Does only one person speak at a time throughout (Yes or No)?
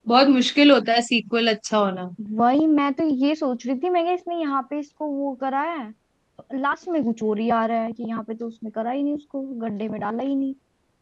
Yes